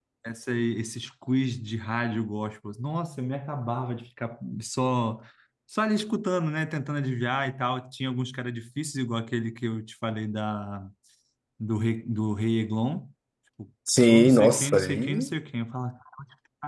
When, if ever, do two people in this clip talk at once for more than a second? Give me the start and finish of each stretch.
14.0-15.3

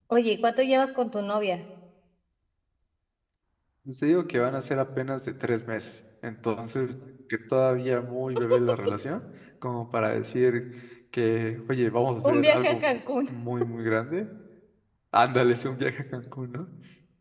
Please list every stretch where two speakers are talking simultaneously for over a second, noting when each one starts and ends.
none

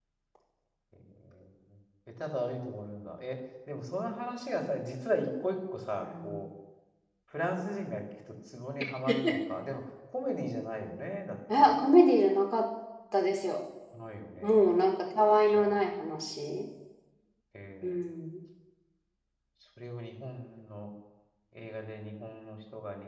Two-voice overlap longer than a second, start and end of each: none

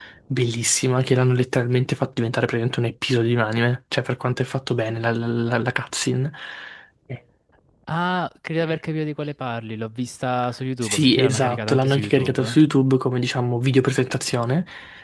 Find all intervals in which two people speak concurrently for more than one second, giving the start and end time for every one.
10.8-12.6

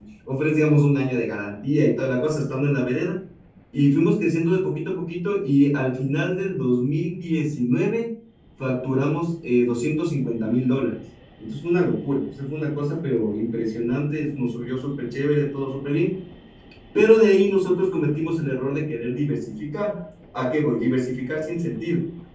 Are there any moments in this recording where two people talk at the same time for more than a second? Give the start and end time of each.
none

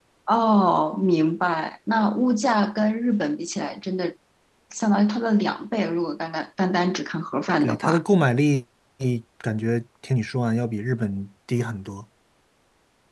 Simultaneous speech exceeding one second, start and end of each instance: none

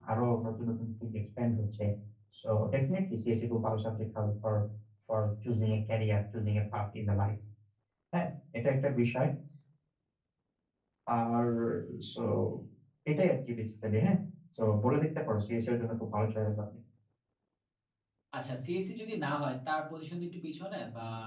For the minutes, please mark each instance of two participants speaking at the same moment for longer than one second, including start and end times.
none

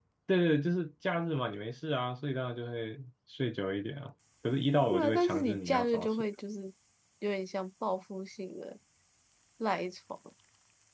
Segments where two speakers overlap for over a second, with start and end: 4.9-6.2

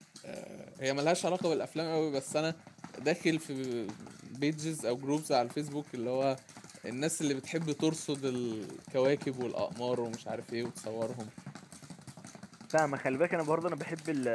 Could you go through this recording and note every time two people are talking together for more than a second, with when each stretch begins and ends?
none

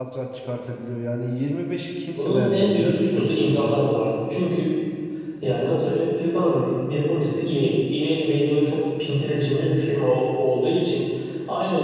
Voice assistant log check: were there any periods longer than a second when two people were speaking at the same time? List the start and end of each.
2.1-3.8

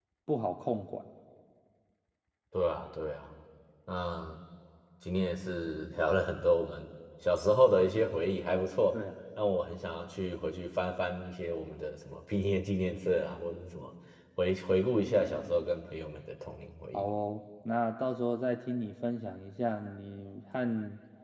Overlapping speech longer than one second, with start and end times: none

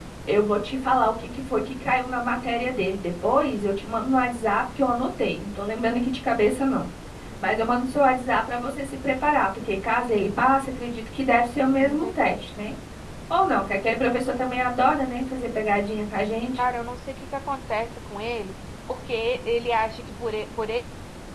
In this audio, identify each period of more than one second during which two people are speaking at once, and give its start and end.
none

